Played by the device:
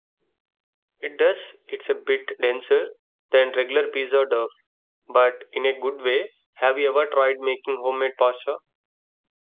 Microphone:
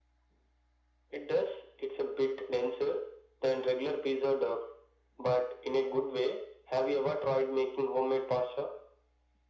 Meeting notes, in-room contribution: none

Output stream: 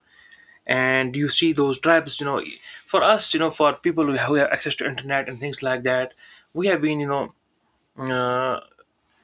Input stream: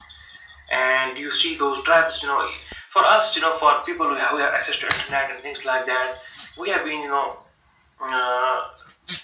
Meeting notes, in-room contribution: none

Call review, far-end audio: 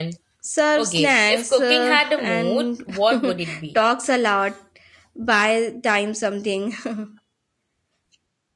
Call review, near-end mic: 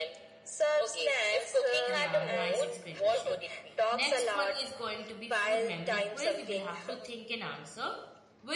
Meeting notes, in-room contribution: present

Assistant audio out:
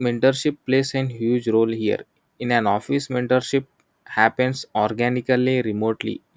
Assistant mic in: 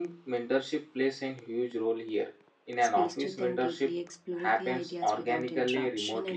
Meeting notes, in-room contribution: present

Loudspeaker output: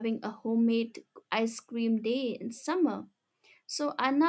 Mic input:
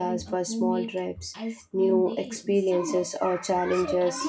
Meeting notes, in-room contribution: present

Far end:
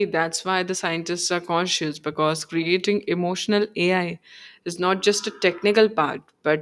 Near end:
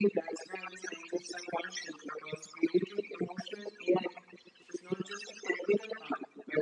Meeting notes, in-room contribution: none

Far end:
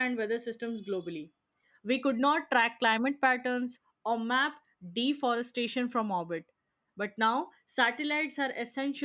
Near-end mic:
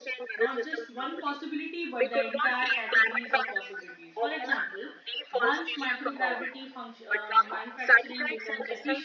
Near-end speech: present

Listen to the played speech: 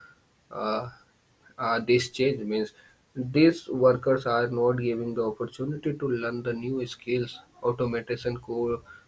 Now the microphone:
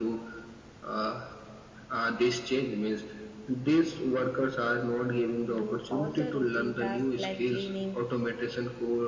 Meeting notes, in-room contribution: present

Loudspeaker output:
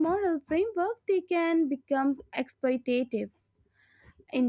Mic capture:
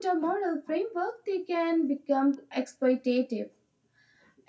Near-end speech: none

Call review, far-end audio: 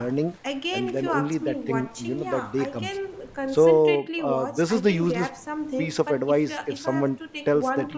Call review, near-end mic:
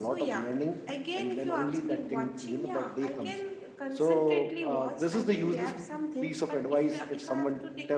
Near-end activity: none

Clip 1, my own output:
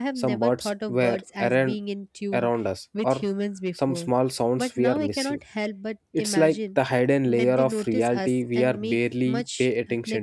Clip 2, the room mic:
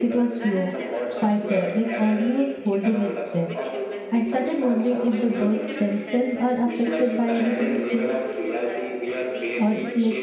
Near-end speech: present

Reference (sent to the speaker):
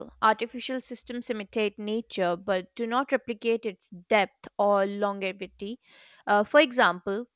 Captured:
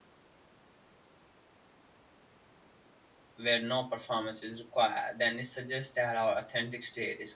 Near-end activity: present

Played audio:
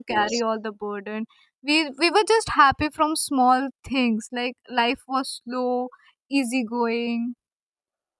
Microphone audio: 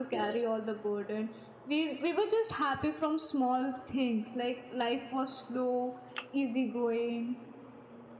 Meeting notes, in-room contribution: none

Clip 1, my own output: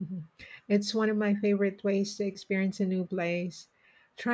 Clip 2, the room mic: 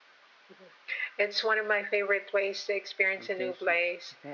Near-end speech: present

